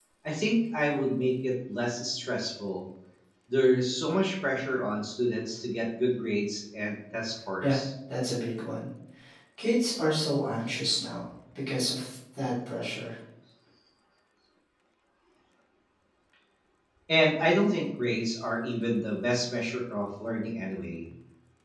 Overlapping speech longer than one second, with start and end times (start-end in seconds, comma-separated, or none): none